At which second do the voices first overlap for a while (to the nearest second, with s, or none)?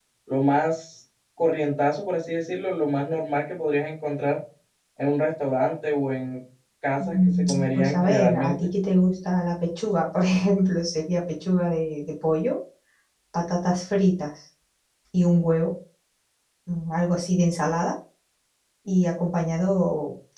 7 s